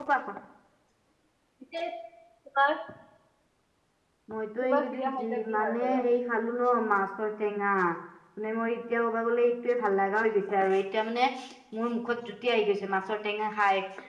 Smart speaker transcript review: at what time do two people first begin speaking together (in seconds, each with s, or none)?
4.6 s